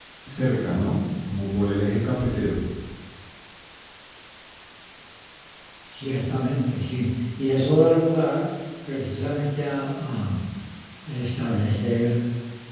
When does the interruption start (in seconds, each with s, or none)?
none